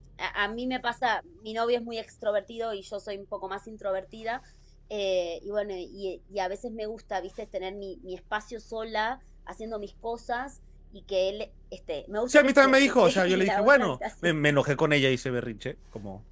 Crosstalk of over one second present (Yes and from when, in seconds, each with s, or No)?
Yes, from 12.3 s